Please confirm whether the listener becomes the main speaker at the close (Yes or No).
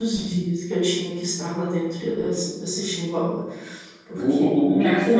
Yes